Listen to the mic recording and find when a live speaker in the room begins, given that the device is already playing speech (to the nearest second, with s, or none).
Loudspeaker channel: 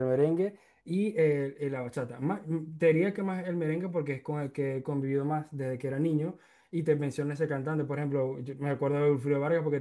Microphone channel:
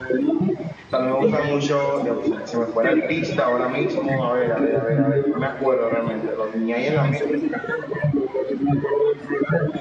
1 s